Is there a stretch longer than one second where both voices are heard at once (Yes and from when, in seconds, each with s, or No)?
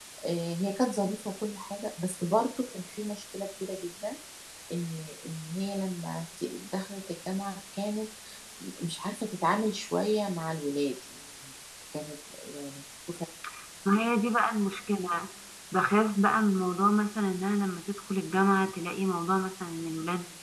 No